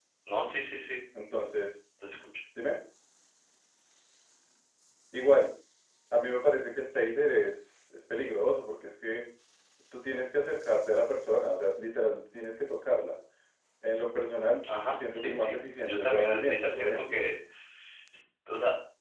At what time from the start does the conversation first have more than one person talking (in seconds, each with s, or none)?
14.9 s